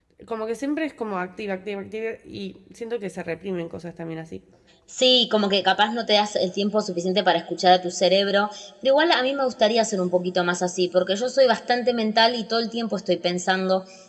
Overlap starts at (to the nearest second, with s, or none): none